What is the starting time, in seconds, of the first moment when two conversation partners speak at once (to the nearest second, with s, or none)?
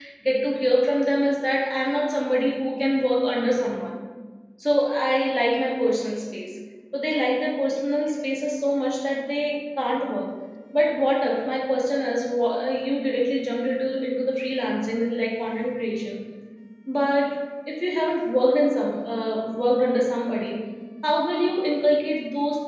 none